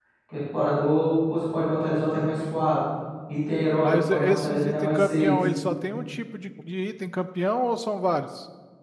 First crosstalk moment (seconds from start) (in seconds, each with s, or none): 3.8 s